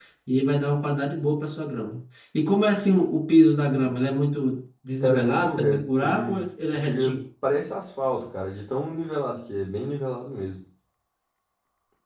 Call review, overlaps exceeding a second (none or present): present